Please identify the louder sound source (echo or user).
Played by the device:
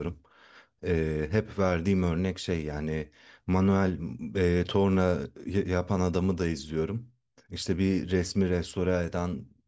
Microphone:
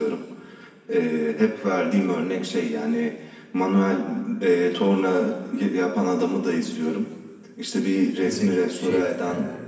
echo